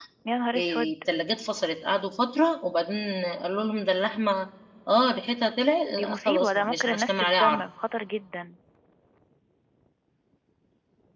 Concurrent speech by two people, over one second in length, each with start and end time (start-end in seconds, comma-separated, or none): 5.9-7.6